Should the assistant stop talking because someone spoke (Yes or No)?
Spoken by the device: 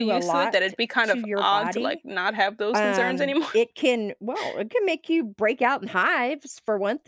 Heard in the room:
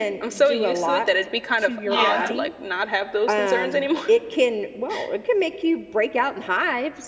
Yes